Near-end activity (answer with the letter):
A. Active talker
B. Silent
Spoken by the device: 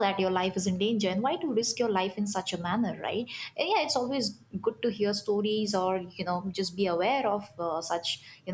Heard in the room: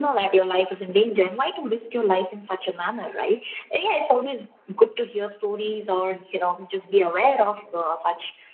B